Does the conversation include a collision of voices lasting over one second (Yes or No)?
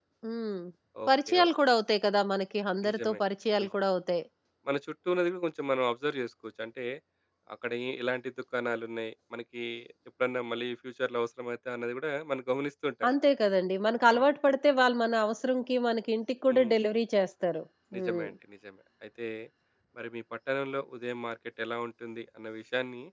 No